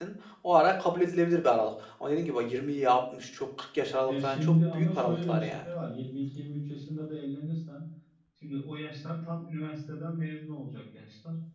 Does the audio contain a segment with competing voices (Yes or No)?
Yes